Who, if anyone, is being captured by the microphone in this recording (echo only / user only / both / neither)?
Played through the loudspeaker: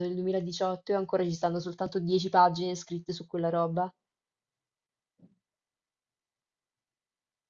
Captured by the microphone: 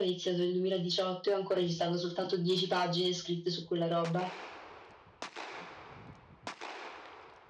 echo only